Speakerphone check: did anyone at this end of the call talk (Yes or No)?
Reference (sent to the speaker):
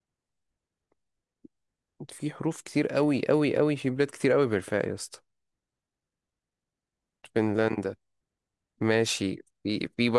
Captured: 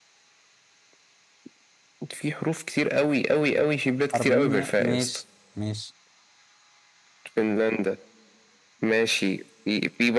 Yes